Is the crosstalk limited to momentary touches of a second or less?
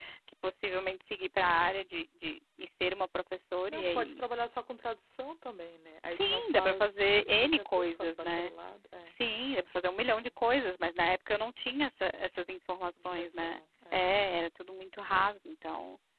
No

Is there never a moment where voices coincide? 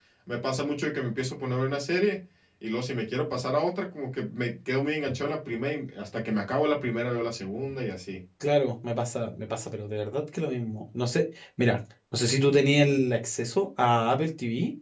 Yes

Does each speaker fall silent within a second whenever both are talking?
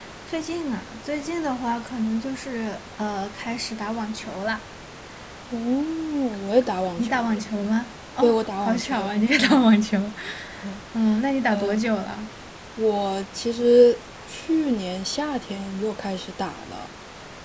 No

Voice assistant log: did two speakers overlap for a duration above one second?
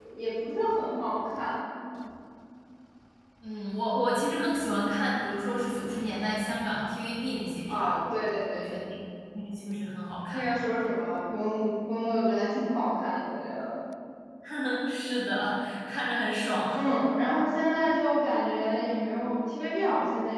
No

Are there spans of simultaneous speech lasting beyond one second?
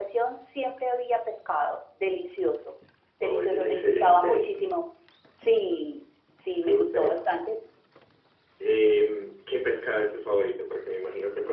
Yes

